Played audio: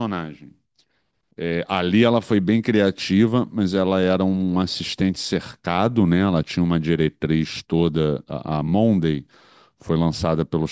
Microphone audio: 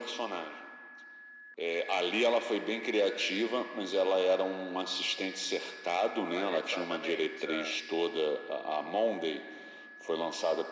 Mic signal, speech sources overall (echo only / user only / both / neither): both